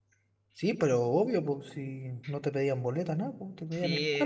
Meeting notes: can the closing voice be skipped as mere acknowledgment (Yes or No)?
No